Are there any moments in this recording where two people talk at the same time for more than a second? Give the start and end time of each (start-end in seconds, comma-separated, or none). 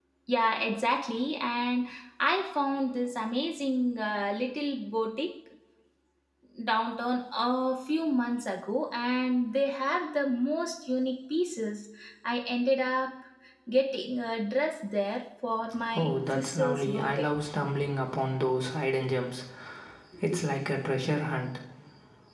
16.0-17.3